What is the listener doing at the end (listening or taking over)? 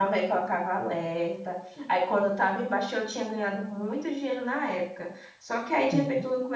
listening